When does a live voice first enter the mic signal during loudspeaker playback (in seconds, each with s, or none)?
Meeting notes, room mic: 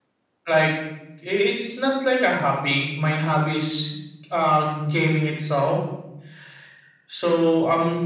none